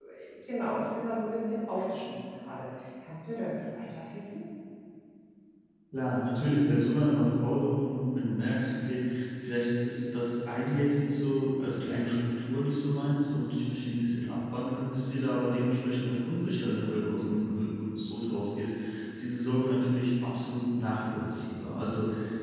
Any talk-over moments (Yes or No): No